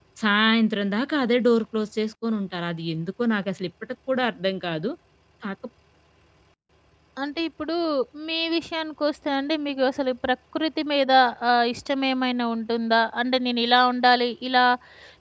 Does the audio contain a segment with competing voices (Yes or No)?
No